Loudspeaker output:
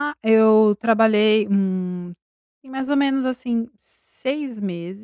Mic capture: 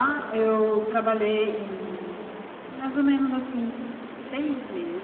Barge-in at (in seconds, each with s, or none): none